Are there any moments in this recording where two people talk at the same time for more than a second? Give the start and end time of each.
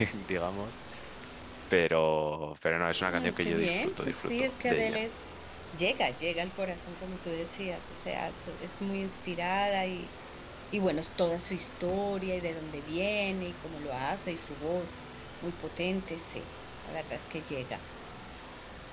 3.1-5.0

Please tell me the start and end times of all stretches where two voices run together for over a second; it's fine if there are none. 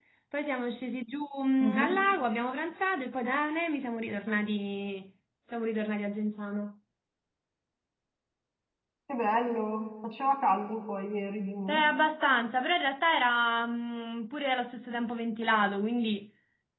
none

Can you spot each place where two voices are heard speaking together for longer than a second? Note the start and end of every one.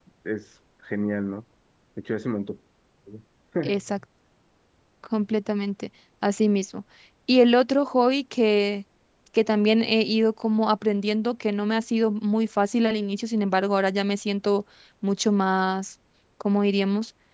none

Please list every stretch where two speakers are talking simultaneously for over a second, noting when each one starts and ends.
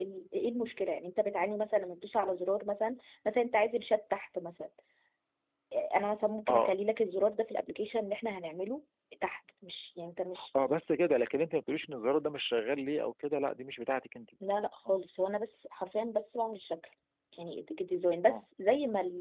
none

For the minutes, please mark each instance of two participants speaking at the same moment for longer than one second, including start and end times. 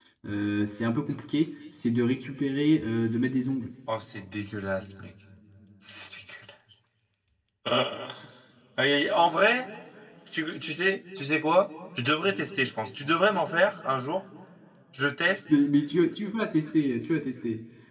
none

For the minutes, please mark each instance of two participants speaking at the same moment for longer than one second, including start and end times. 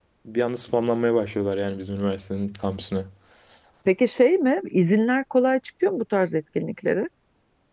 none

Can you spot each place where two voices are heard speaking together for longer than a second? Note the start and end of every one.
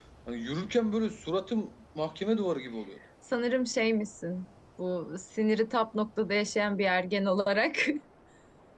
none

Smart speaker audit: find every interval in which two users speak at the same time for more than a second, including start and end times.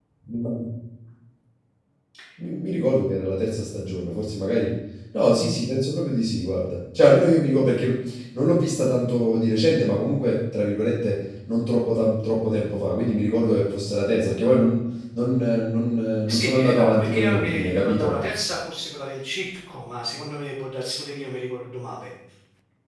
16.3-18.1

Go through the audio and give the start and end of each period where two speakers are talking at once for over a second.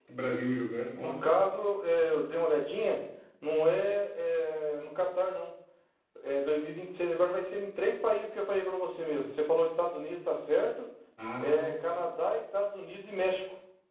none

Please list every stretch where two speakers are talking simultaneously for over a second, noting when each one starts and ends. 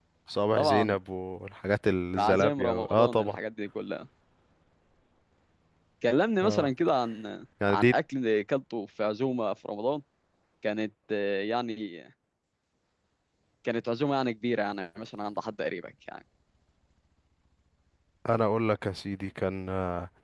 2.2-3.4

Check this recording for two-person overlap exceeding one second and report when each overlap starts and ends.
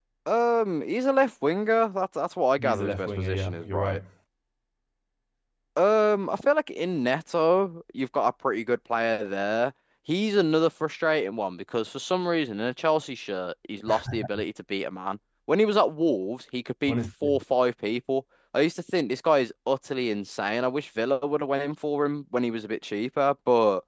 2.6-4.0

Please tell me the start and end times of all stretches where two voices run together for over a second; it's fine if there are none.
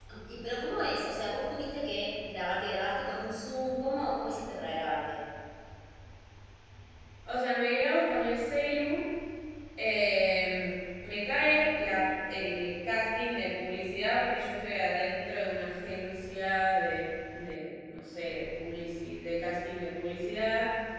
none

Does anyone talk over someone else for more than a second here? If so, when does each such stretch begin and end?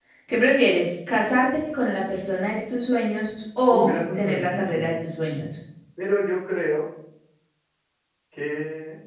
3.7-4.9

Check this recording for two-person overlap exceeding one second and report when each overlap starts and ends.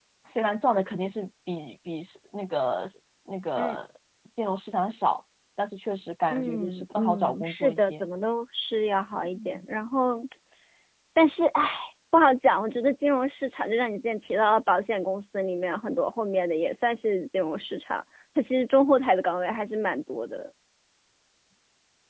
6.3-8.1

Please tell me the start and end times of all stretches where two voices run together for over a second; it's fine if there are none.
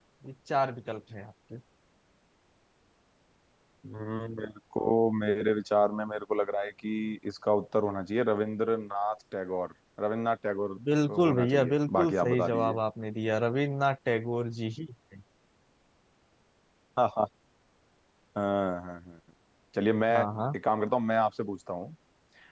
11.1-12.8

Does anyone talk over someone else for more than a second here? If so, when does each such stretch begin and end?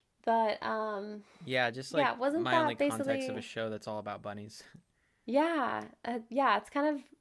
1.9-3.5

